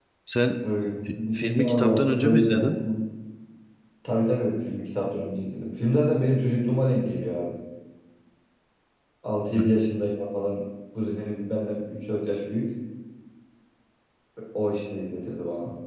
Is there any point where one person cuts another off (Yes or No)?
Yes